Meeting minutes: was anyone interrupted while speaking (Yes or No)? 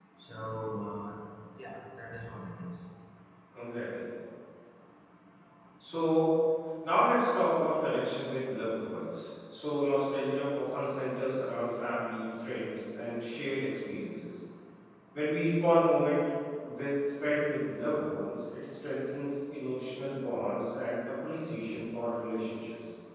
No